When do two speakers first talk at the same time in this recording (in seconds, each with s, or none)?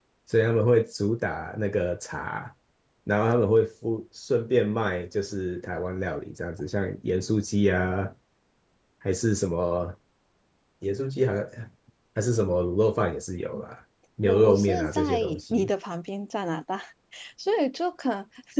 14.2 s